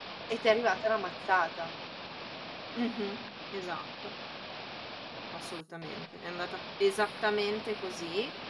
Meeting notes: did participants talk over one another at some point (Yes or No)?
No